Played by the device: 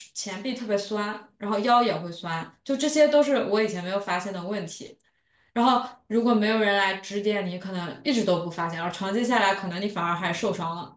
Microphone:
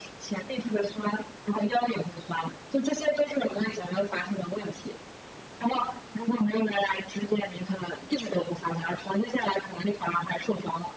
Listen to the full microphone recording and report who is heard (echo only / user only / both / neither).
echo only